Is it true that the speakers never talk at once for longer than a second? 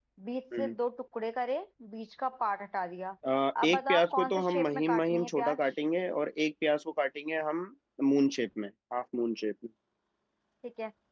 No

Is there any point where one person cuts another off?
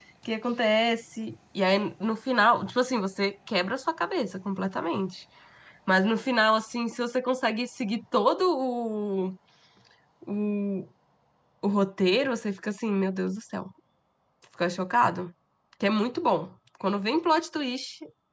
No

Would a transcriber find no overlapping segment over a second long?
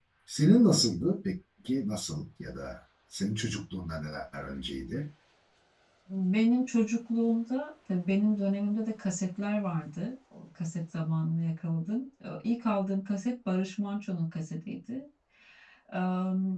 Yes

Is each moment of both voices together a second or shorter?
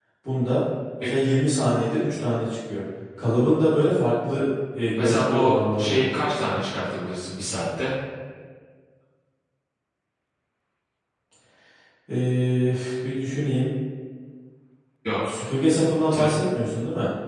No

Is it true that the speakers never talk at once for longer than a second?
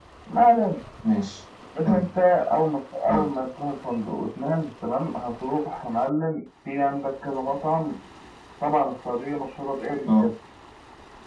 Yes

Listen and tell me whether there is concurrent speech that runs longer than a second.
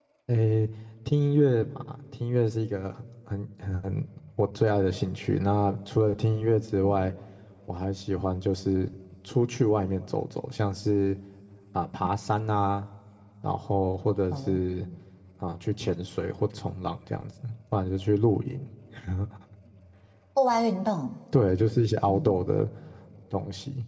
No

